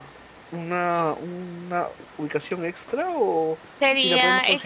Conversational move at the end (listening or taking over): taking over